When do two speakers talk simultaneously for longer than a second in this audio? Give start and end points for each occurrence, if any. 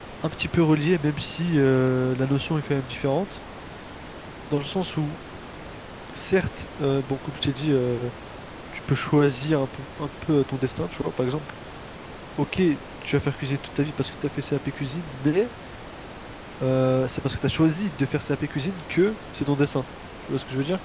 none

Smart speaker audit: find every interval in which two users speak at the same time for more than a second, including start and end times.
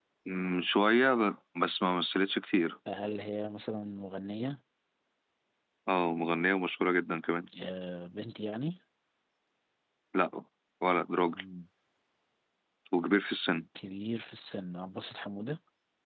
none

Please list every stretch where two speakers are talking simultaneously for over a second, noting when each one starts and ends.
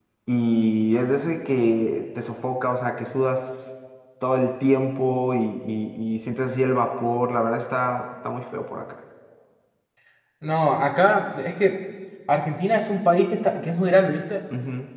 none

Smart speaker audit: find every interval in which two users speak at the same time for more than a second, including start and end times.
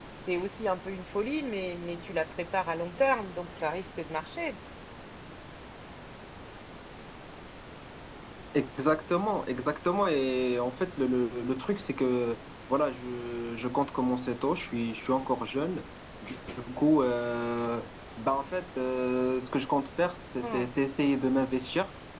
none

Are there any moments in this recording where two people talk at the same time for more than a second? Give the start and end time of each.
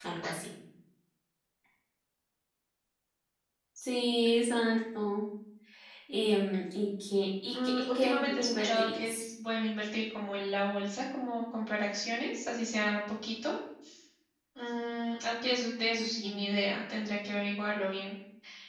7.5-9.2

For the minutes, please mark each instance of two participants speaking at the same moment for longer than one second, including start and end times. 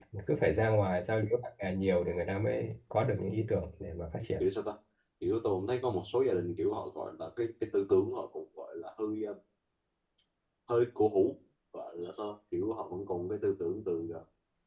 none

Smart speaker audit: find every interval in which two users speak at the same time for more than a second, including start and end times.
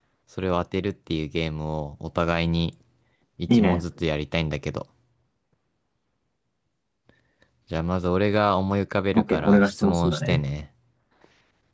9.1-10.4

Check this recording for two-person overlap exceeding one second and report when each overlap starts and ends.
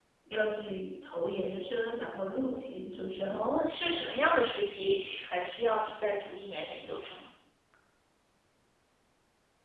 none

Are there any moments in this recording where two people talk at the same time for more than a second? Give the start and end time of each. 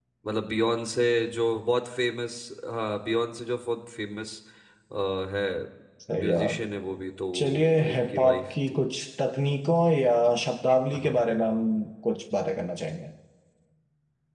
7.3-8.8

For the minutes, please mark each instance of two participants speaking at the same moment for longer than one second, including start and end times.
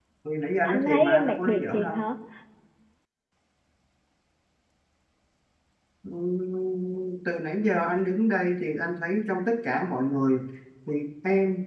0.6-2.0

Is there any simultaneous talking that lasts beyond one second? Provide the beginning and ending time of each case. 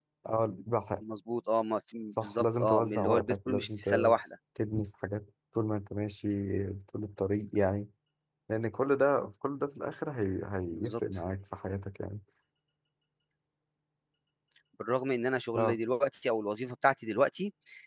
2.1-3.9

